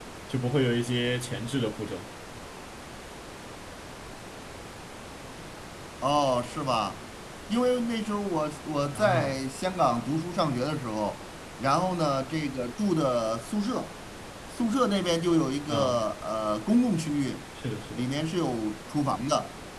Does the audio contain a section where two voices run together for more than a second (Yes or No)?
No